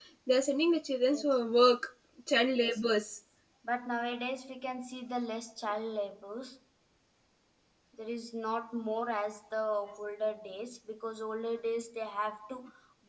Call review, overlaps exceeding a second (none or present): none